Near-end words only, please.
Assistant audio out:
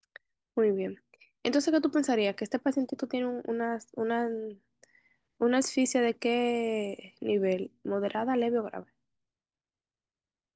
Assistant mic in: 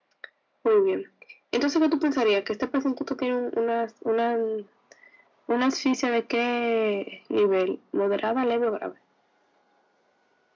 none

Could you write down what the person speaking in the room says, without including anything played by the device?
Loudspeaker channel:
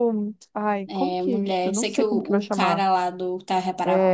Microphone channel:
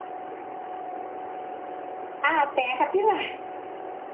Ah, tem a capivara.

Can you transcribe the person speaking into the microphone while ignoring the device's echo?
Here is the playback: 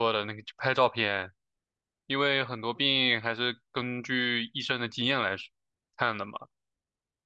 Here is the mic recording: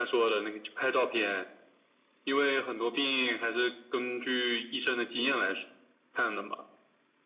none

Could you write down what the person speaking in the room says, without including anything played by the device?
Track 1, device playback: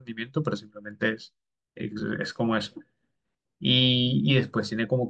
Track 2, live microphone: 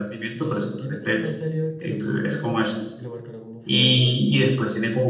dos centímetros más salida que el otro jugador y lo marcaron como fuera de lugar.

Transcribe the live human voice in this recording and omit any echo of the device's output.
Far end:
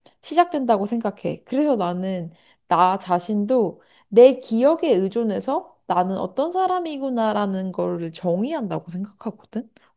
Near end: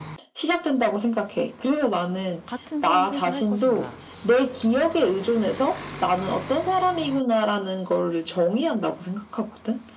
같은 선택을 할 것인가,

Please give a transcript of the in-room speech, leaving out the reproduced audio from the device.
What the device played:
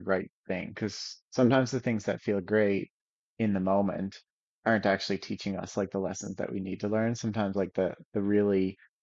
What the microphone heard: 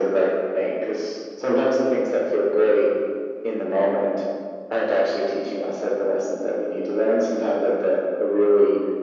none

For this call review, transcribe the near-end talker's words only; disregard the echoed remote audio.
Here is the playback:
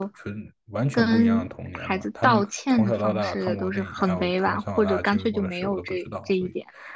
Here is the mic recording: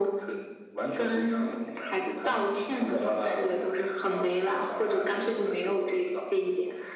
none

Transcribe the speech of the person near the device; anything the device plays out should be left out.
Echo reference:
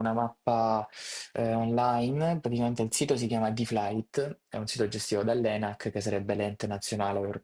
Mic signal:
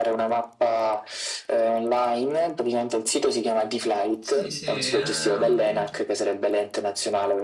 Sì, sì, eh, non-

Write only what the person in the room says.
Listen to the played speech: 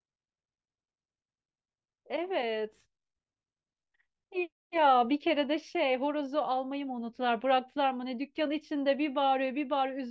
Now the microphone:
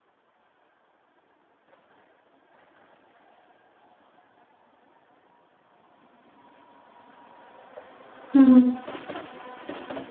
Hı hı.

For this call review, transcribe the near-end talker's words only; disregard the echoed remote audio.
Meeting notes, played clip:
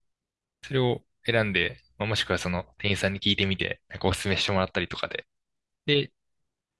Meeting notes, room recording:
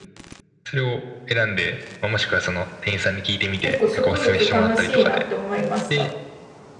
結構植物楽しいなって思いました。

